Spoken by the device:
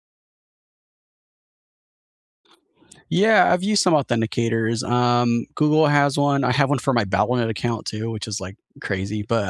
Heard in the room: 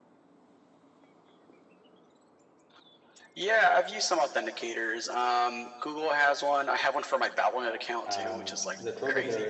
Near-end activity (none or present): present